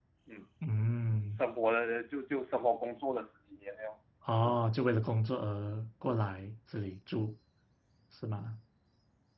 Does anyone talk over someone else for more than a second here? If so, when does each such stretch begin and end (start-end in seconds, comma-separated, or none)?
none